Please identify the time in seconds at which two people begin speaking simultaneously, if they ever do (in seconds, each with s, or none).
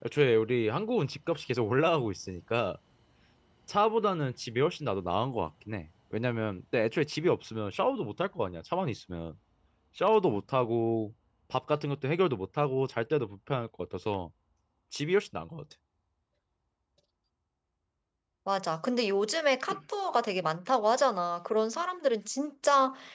none